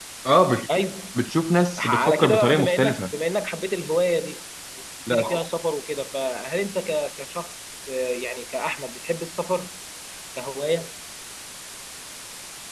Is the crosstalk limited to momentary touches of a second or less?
No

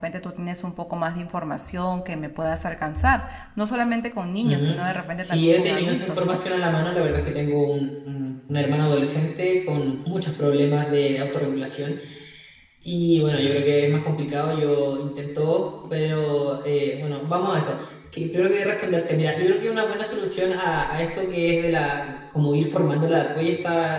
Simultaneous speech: Yes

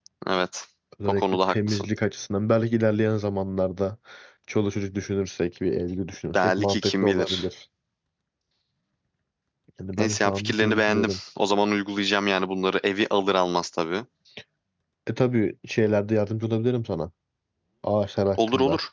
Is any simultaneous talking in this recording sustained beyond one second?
Yes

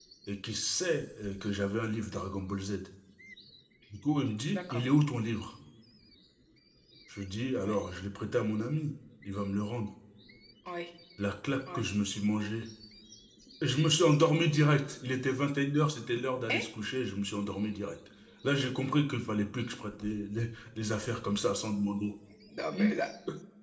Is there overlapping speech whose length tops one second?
No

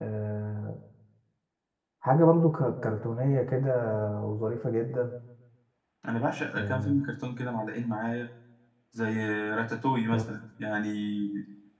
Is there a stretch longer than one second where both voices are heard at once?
No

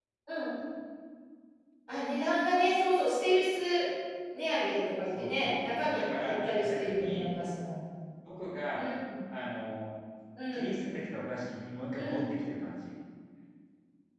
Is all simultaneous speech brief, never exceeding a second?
No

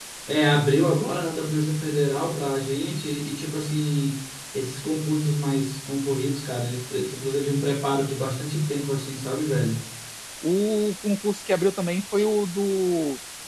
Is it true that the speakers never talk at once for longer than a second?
Yes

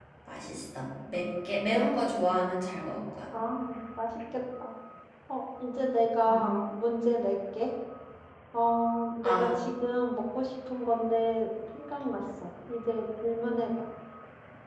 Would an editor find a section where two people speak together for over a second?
No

